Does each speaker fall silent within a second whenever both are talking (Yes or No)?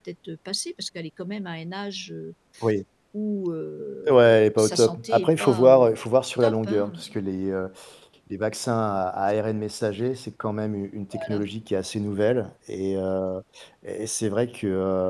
No